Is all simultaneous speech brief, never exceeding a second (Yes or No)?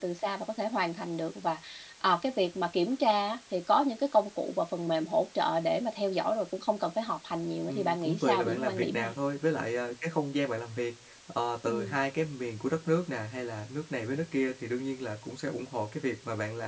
No